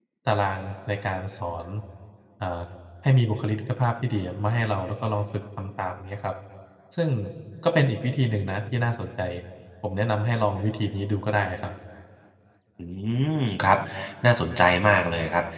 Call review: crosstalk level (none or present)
none